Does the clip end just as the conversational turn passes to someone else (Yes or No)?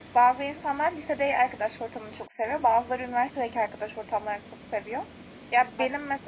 No